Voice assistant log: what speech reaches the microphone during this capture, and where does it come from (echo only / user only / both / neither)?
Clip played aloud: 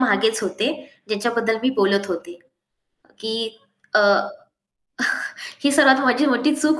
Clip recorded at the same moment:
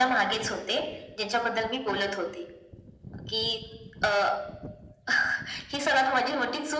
echo only